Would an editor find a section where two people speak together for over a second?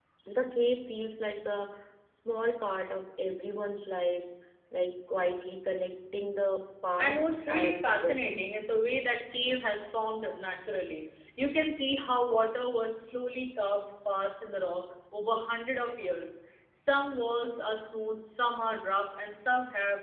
Yes, from 7.0 s

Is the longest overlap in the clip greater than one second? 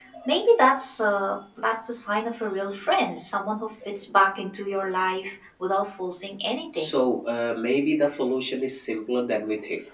No

